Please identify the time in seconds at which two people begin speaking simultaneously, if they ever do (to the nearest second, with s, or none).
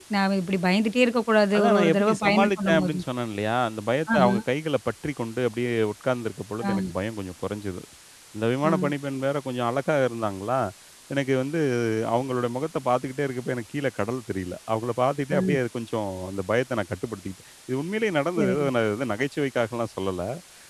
2 s